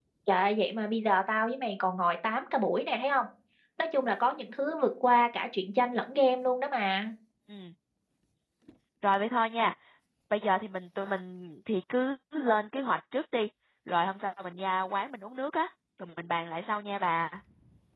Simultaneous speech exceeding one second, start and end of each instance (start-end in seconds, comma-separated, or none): none